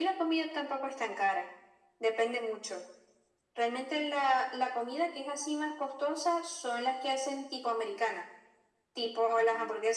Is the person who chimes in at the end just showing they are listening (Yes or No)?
Yes